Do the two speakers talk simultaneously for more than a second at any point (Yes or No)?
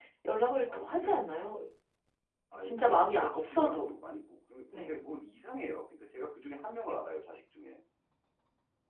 Yes